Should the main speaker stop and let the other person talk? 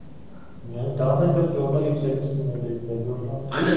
Yes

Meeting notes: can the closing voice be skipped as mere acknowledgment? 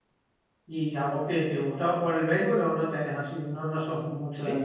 No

